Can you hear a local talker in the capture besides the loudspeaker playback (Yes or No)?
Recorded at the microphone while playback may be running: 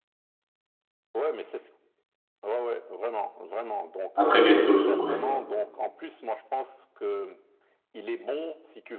Yes